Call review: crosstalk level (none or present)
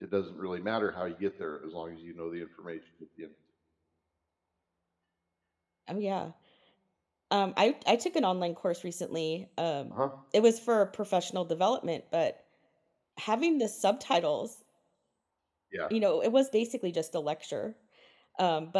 none